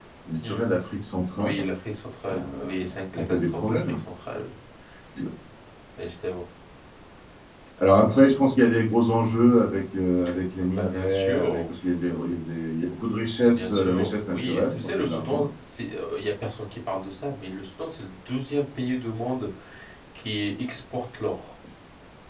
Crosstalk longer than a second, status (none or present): present